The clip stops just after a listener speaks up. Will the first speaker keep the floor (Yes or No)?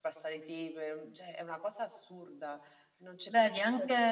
No